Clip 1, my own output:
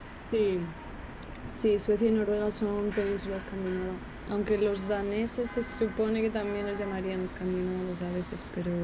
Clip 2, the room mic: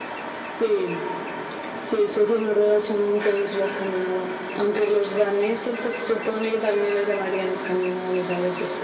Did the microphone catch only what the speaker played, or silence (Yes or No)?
Yes